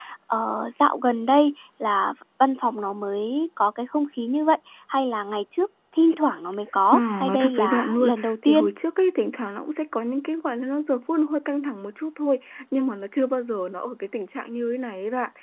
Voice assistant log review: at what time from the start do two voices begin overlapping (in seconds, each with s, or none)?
6.9 s